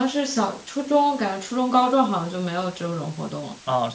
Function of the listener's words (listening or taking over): taking over